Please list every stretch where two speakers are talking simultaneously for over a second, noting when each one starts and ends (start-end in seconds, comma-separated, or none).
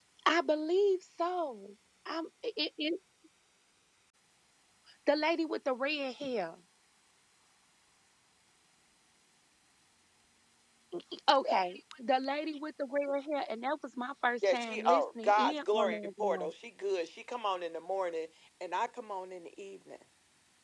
14.5-16.5